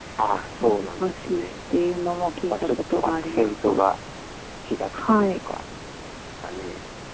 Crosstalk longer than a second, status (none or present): present